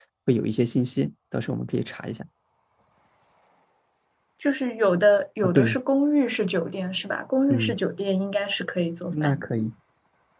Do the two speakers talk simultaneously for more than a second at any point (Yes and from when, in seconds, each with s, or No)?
No